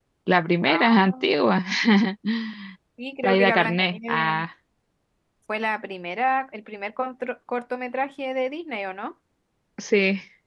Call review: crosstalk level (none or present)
present